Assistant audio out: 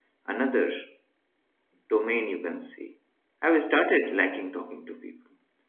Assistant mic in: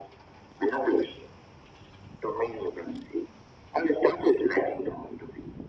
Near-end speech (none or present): none